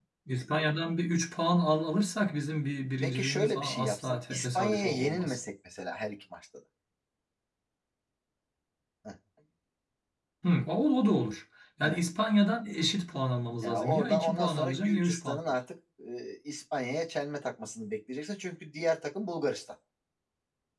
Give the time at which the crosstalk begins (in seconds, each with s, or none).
3.0 s